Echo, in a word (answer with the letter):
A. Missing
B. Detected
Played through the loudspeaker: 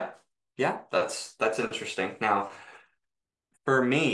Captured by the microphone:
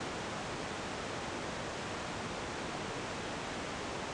A